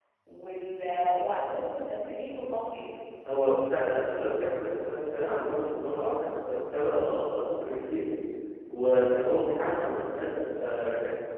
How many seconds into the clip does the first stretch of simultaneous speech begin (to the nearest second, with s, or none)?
none